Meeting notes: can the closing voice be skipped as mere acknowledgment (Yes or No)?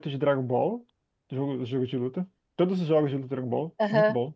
No